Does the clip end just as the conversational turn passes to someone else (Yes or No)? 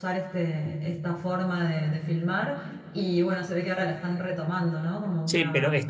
Yes